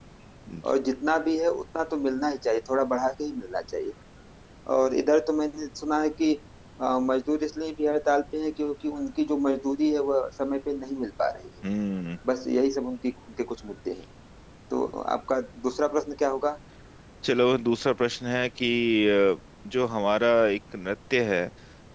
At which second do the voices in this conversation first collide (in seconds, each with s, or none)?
none